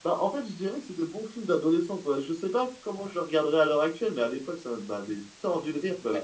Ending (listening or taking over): taking over